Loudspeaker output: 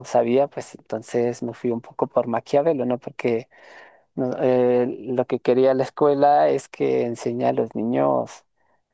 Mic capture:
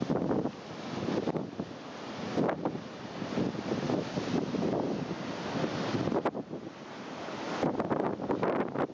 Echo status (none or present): none